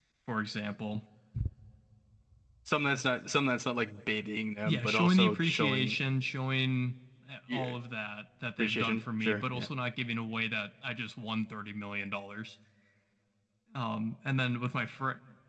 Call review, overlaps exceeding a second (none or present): present